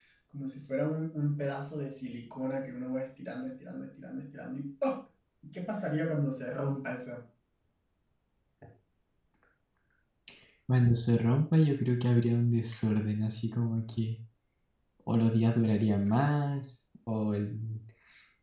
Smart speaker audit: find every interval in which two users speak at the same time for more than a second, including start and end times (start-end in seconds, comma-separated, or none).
none